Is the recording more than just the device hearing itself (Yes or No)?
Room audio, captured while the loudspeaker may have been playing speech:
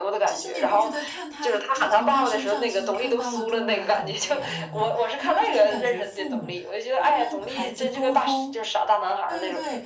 Yes